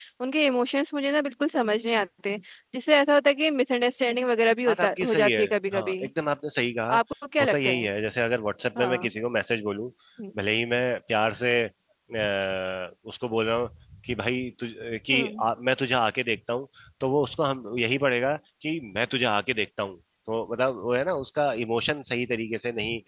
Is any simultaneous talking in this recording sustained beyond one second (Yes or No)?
Yes